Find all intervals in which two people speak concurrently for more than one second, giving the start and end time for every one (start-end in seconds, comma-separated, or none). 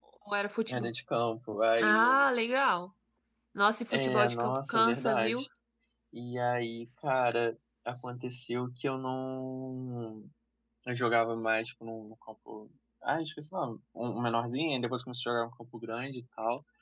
3.9-5.4